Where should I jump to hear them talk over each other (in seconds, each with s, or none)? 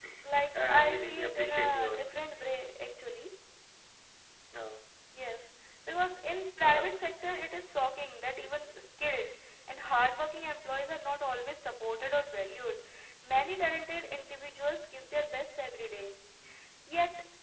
0.6 s